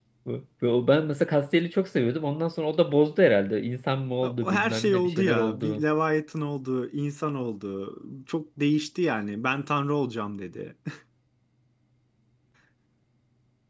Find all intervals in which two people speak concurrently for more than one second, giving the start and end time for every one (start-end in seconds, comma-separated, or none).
4.4-5.8